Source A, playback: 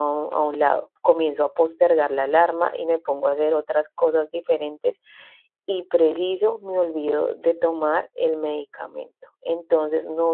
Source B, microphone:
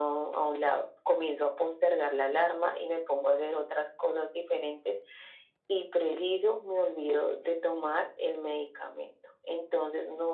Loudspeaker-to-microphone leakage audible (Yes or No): Yes